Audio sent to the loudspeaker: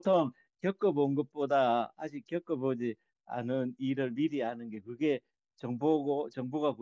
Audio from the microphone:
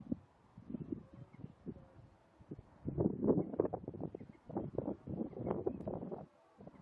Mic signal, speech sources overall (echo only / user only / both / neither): neither